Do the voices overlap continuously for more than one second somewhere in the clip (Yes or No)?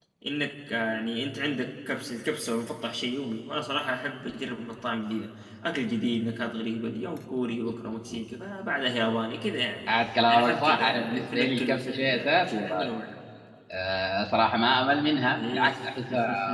Yes